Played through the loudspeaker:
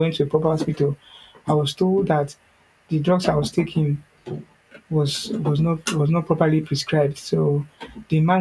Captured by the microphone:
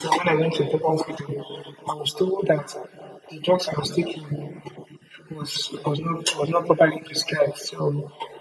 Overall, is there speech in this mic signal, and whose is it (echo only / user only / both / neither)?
echo only